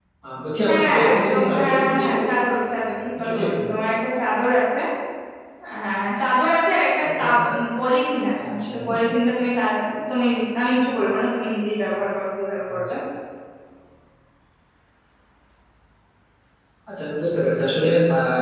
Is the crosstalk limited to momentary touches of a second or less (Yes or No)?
No